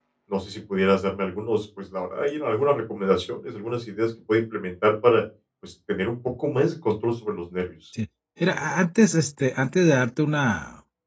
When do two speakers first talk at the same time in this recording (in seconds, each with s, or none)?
none